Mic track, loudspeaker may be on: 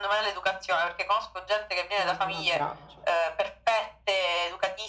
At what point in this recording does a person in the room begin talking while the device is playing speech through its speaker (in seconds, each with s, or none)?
1.9 s